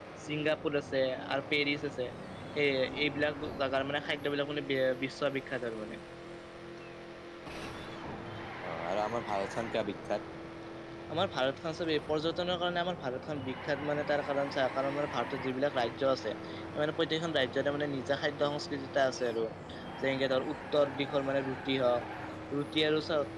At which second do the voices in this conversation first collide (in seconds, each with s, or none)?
none